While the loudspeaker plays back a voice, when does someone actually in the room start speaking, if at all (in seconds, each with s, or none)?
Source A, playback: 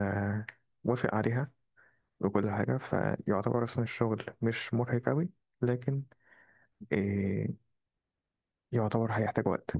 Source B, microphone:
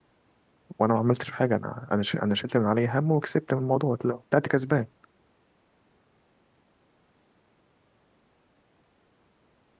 0.8 s